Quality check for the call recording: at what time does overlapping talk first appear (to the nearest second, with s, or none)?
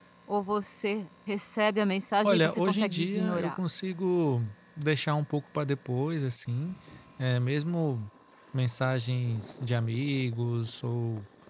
2 s